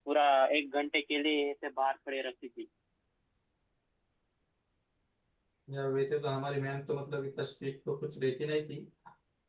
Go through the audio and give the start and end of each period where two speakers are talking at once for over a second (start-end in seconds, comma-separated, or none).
none